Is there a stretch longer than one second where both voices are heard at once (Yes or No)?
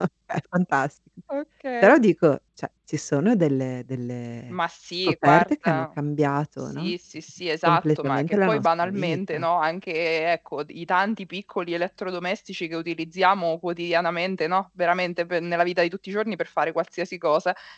Yes